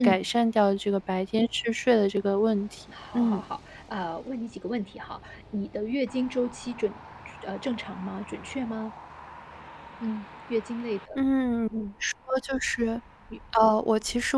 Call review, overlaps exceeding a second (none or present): none